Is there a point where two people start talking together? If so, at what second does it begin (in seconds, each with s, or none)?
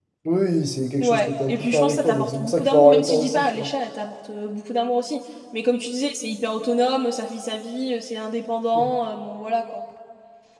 1.0 s